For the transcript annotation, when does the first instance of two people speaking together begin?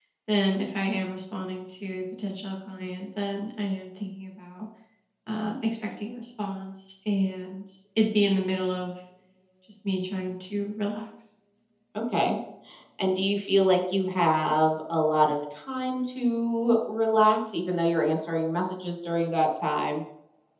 none

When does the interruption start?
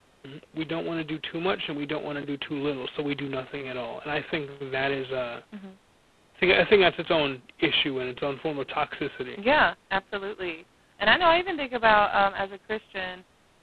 none

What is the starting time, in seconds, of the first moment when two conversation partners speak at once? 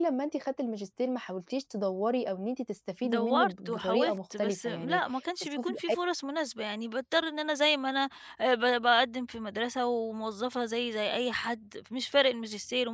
3.0 s

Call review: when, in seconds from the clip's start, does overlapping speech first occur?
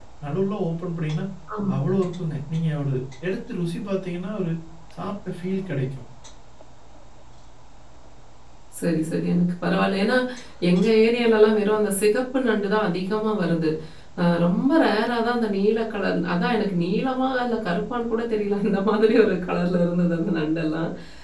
none

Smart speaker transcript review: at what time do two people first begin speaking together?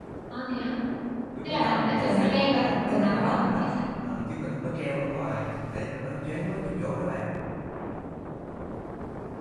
1.4 s

